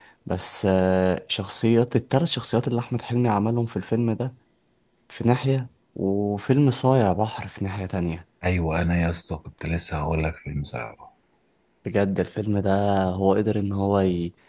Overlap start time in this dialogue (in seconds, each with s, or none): none